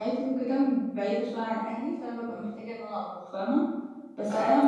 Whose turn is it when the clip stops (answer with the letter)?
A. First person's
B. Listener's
A